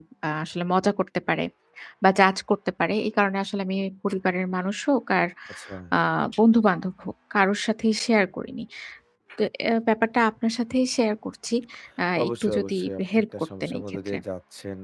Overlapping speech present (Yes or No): Yes